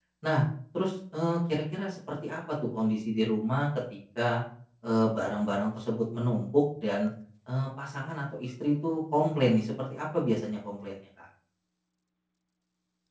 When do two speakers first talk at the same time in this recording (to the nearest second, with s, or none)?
none